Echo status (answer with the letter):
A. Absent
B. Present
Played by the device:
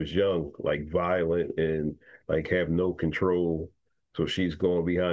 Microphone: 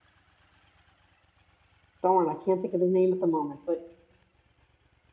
A